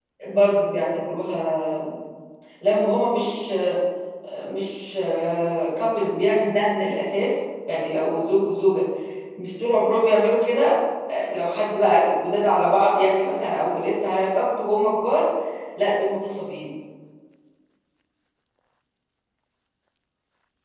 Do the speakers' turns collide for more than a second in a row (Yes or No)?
No